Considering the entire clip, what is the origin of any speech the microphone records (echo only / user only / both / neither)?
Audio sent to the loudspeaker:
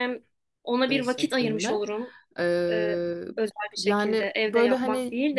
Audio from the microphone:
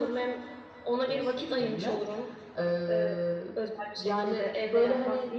echo only